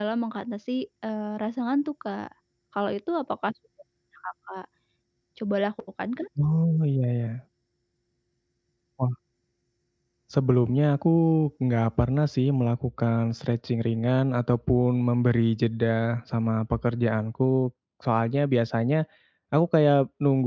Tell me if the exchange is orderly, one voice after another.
Yes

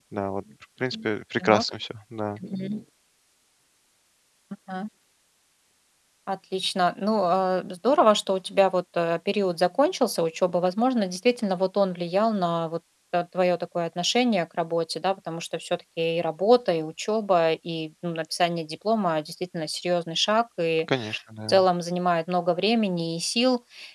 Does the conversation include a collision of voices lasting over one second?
No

